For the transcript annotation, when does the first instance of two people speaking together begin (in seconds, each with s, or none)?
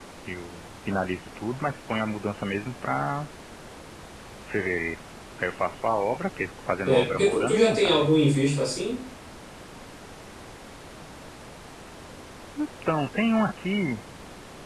6.8 s